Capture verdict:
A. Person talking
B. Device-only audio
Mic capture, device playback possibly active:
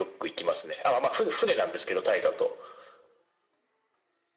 B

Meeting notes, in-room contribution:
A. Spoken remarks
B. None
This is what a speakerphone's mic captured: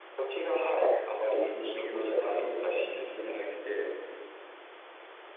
A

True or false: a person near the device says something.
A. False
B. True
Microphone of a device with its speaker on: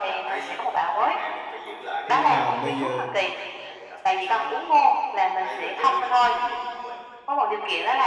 B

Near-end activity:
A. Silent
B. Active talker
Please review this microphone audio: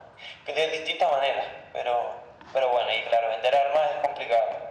A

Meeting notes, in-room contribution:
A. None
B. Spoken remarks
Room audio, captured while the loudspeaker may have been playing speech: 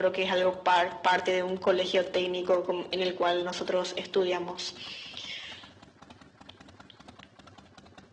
A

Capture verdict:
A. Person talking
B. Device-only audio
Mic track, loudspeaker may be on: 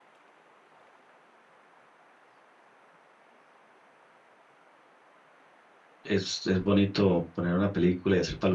A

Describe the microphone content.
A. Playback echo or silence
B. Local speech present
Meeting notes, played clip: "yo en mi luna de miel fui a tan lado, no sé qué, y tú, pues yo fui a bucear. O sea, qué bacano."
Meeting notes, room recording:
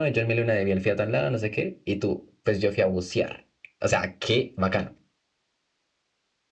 A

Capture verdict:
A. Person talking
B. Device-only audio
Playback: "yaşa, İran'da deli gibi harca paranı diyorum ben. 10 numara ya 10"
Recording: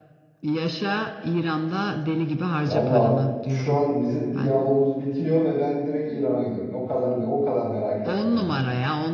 A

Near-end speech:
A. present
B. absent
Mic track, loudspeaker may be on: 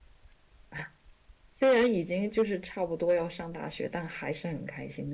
A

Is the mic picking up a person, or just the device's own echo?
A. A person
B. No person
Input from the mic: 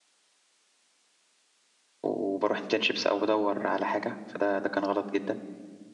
A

